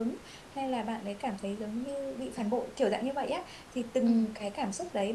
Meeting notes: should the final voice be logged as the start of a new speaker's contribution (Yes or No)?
No